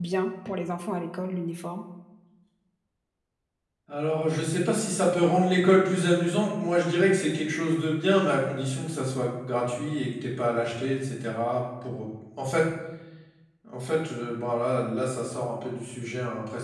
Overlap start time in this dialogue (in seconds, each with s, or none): none